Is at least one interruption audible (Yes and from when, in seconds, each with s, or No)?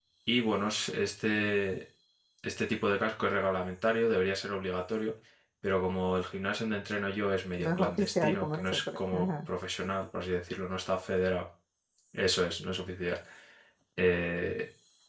Yes, from 7.6 s